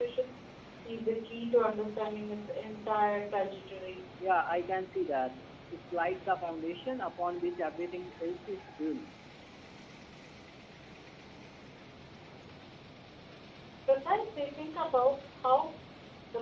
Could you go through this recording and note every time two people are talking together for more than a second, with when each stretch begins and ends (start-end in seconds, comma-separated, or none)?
none